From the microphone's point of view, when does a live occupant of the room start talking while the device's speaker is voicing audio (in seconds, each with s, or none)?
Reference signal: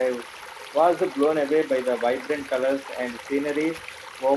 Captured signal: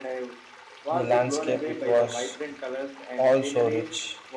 0.9 s